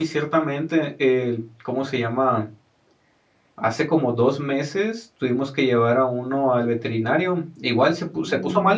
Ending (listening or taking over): listening